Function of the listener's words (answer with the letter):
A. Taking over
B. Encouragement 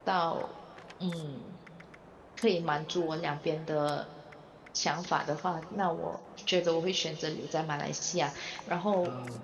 B